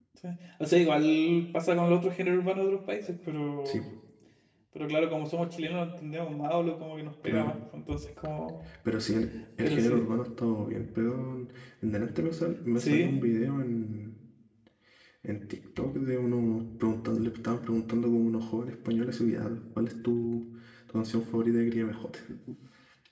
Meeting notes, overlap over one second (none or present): none